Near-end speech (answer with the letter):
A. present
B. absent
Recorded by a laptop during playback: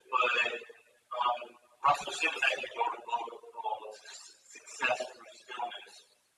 B